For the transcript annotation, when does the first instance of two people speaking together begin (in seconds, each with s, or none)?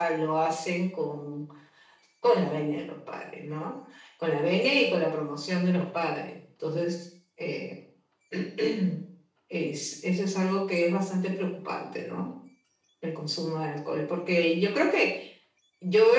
none